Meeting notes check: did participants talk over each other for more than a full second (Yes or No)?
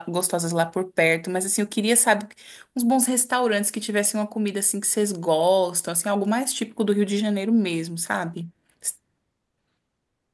No